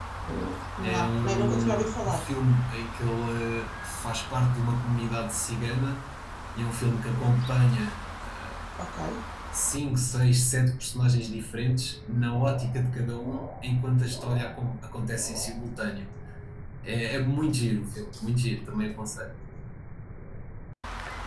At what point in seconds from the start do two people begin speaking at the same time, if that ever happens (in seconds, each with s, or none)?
0.8 s